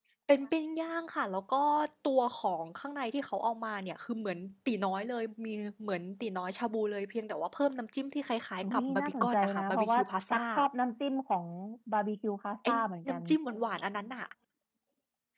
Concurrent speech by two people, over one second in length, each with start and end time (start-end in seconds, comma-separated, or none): 8.6-10.4